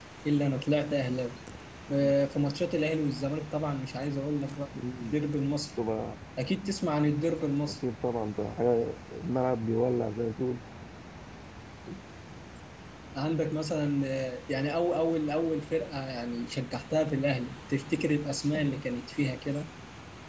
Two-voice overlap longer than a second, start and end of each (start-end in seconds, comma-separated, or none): none